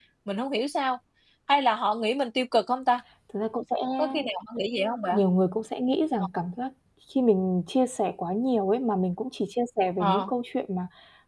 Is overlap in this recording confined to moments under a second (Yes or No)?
Yes